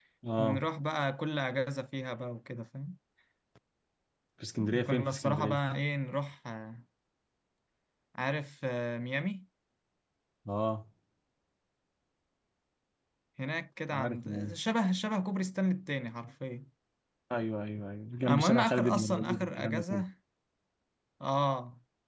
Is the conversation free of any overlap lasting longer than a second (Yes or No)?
No